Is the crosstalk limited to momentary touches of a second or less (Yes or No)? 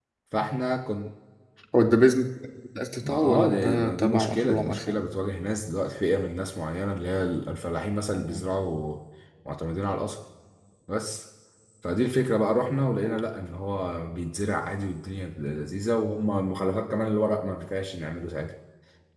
No